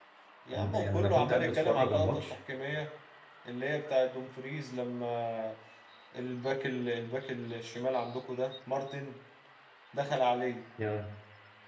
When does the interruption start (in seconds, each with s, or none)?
0.5 s